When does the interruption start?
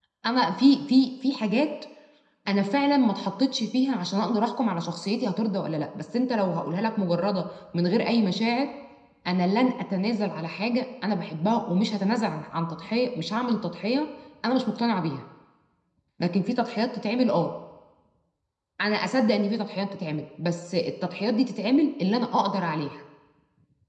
none

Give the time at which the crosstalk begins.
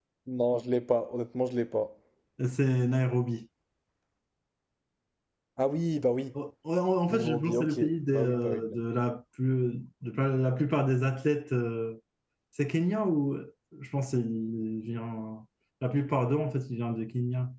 7 s

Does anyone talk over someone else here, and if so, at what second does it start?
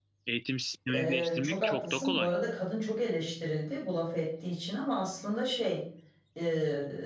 1 s

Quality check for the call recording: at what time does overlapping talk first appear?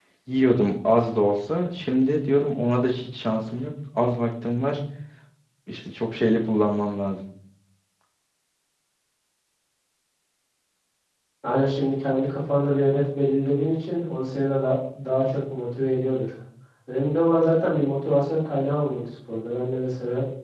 none

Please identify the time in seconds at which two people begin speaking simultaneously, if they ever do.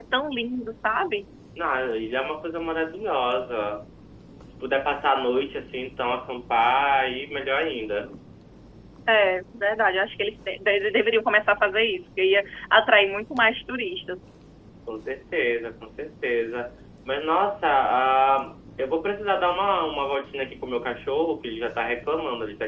none

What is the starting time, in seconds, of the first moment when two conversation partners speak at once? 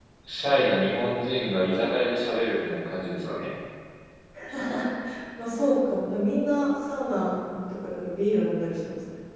none

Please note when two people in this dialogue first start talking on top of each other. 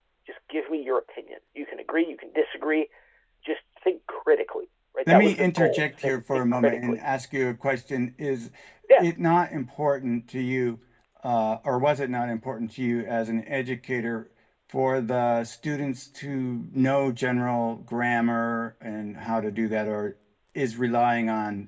5 s

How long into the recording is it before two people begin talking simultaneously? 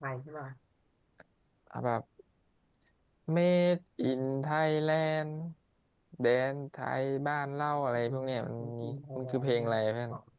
8 s

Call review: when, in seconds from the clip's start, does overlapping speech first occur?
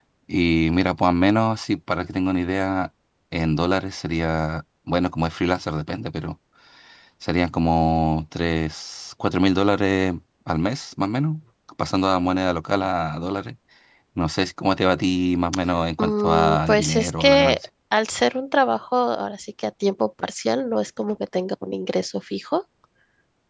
16 s

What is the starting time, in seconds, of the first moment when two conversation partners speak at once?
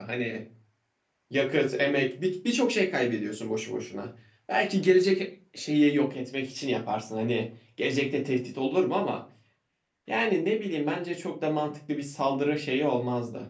none

